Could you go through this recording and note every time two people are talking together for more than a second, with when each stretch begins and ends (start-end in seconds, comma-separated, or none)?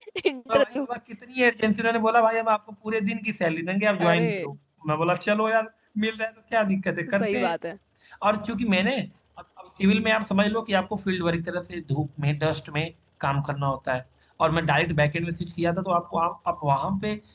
none